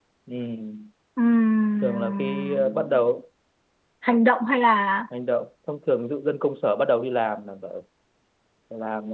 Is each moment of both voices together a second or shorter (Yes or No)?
No